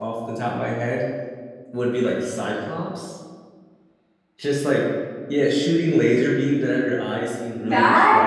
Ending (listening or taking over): listening